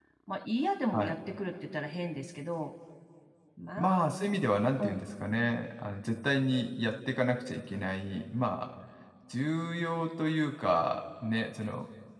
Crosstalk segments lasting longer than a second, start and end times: none

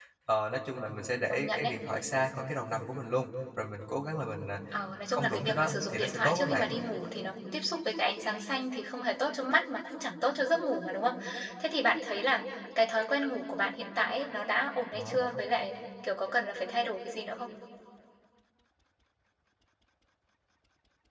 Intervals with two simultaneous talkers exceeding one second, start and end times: 5.1-6.7

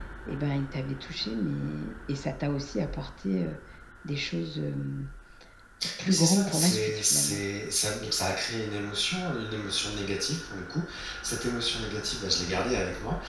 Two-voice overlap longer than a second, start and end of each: 6.0-7.4

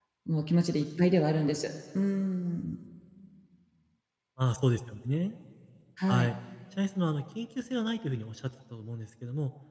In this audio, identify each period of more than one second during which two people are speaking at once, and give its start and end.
none

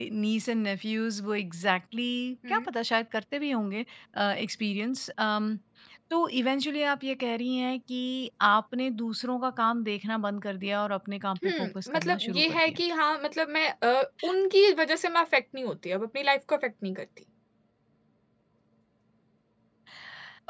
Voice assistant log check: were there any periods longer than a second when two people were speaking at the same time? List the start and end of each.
11.4-12.8

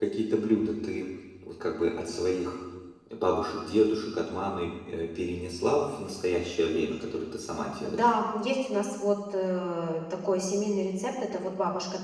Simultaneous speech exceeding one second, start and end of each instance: none

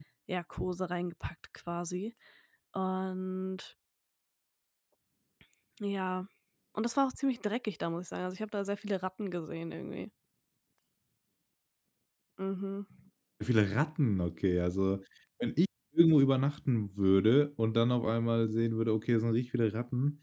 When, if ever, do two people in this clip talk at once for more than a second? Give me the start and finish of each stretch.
none

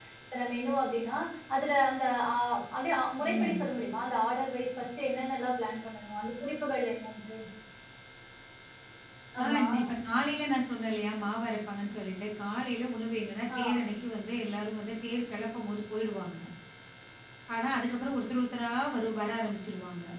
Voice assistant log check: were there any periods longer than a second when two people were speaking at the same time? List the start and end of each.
none

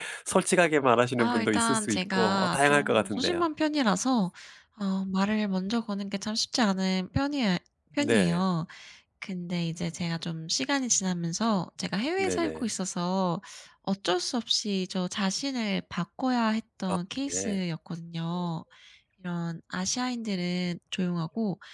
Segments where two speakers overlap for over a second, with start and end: 1.2-3.5

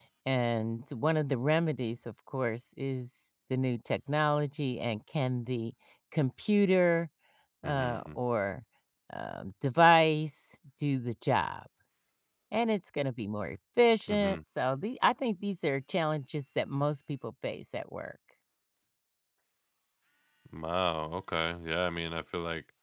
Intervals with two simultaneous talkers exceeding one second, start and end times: none

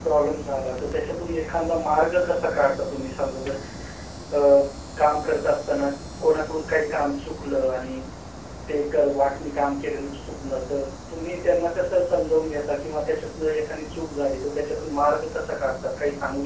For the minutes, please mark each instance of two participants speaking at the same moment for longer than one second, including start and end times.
none

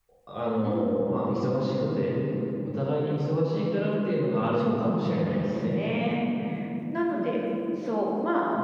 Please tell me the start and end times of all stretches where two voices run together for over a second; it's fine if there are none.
4.6-5.8

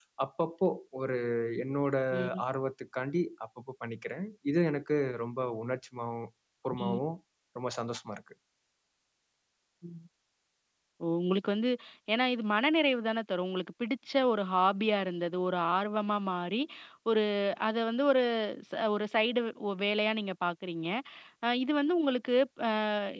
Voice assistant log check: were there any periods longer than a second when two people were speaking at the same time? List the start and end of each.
none

